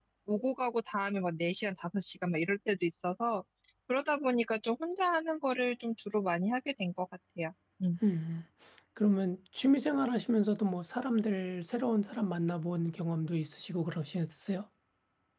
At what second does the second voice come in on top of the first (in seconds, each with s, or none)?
none